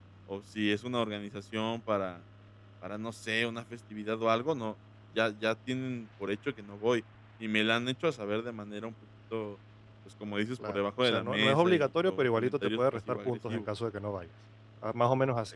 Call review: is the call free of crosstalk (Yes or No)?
No